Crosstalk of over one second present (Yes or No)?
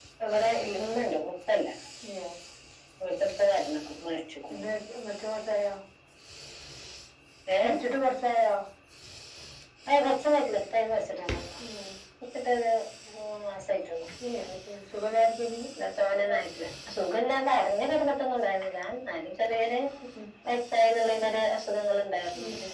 No